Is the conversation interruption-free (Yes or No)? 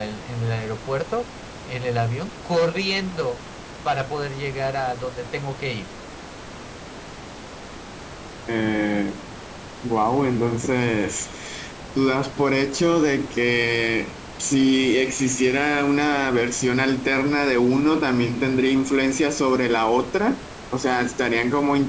Yes